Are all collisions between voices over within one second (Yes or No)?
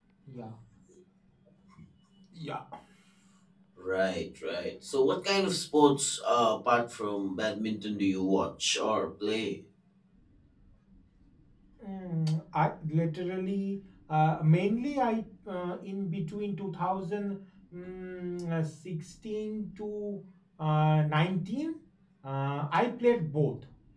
Yes